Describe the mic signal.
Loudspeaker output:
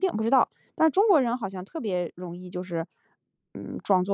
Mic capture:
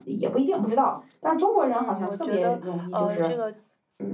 both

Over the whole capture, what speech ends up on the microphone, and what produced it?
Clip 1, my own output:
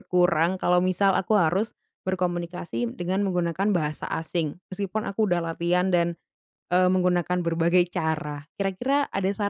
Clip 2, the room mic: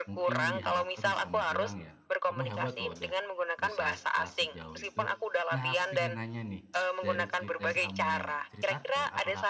both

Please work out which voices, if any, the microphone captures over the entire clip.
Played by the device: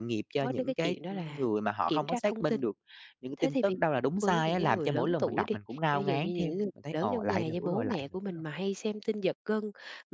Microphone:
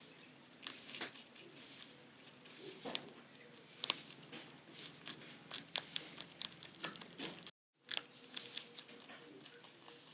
neither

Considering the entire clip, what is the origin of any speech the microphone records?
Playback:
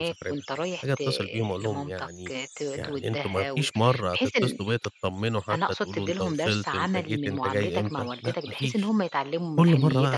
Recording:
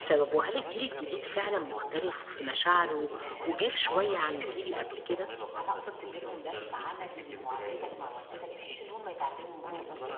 both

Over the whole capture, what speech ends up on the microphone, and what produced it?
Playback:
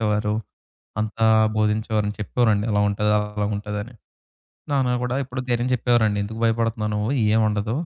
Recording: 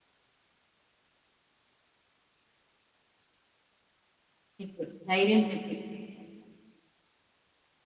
user only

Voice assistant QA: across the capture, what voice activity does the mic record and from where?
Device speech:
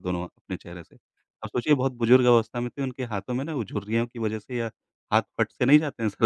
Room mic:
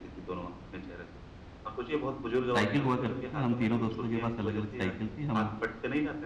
both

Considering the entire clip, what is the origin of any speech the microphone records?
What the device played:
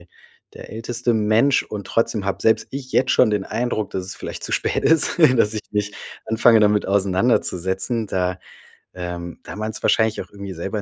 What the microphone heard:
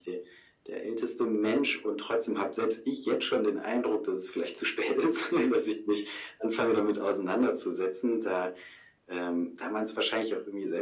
echo only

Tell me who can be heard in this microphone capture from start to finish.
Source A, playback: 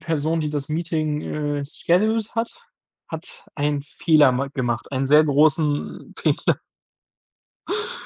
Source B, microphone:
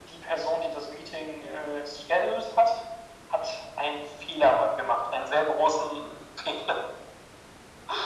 echo only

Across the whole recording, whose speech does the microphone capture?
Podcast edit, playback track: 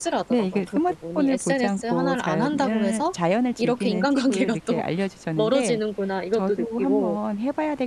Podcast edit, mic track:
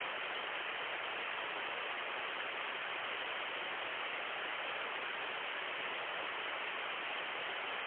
neither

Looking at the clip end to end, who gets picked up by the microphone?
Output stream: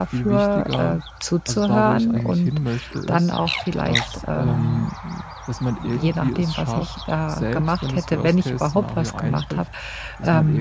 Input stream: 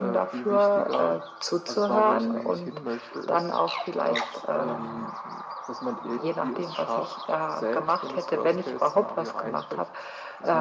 echo only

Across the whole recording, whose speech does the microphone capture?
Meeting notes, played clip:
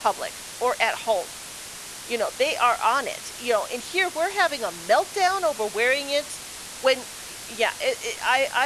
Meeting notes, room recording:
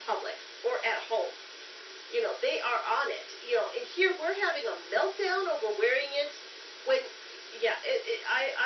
echo only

